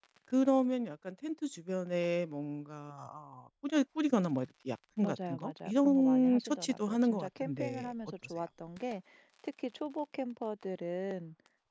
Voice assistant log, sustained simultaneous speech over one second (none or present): present